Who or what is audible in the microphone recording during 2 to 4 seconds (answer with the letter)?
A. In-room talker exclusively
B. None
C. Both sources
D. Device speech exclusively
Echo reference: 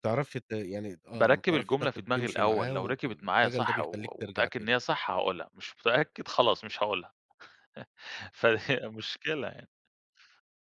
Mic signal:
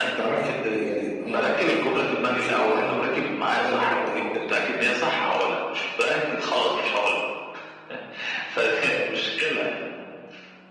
D